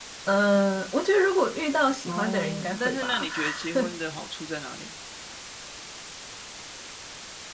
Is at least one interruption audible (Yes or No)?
Yes